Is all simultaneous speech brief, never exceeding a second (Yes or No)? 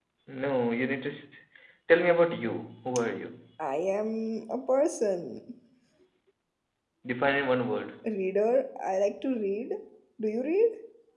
Yes